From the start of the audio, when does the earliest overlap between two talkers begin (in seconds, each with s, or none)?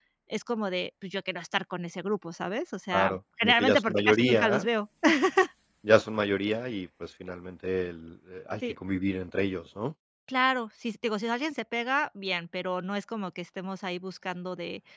2.9 s